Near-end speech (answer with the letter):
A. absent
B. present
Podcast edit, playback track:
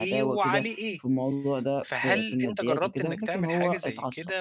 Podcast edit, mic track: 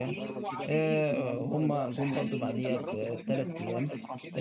B